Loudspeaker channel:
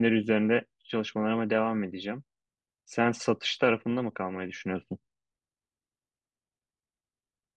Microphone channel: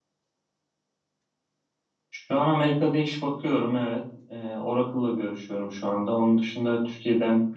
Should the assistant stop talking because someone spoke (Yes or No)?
Yes